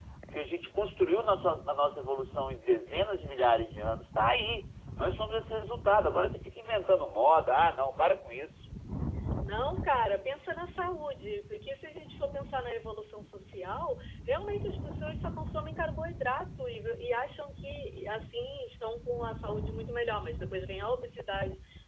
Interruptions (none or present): none